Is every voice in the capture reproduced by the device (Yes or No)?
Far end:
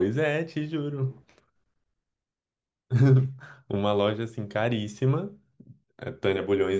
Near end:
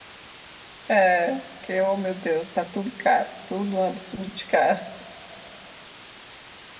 No